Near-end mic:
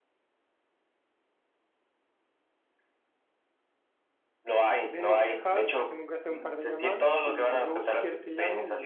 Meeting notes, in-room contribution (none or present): present